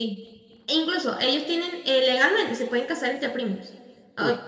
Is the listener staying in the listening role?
Yes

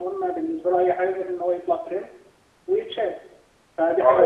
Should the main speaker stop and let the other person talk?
Yes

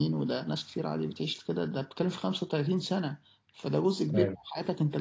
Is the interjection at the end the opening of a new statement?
No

